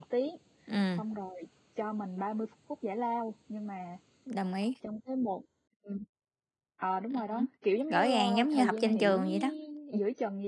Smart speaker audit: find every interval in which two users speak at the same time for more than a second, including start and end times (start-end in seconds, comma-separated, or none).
7.9-9.2